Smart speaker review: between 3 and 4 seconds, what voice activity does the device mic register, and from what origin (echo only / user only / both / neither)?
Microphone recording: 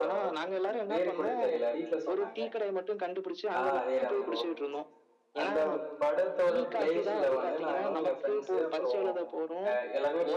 both